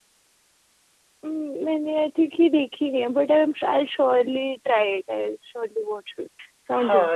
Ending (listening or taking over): taking over